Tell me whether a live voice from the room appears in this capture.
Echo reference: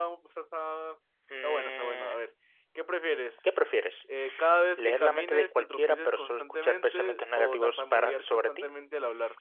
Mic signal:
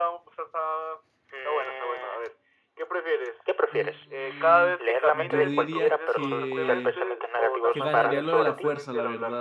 Yes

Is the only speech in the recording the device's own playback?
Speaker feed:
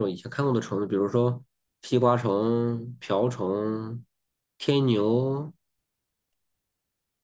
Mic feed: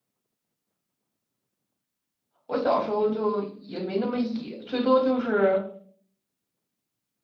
No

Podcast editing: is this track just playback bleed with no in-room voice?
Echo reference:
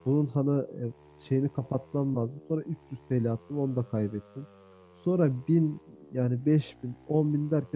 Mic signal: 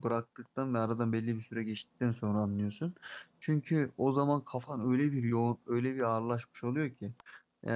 No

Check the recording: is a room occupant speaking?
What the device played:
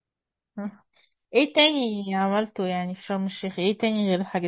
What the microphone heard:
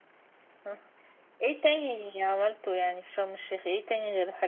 No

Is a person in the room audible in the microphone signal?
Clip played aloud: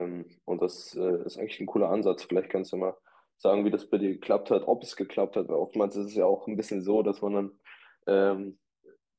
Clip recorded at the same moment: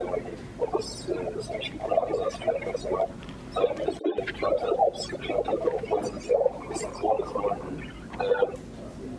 No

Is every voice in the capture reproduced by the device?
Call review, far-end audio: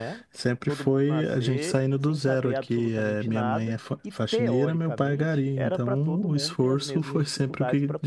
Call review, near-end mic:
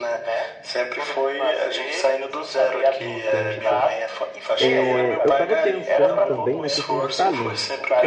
No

